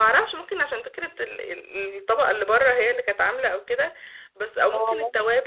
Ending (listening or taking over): listening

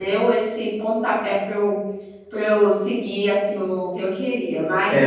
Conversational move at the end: taking over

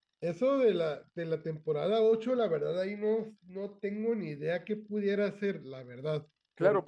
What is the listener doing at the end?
taking over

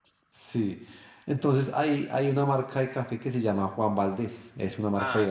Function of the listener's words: taking over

